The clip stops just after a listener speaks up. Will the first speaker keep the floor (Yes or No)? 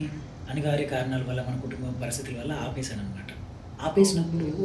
Yes